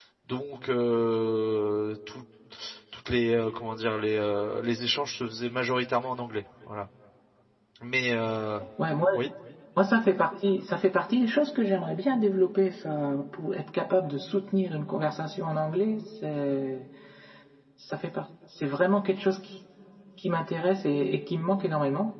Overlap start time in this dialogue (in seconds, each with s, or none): none